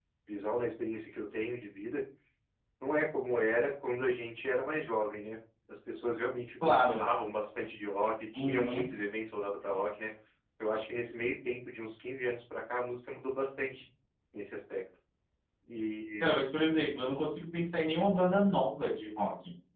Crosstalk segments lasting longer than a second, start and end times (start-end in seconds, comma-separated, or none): none